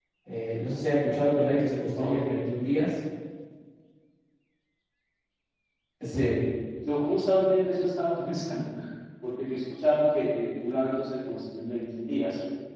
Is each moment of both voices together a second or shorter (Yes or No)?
Yes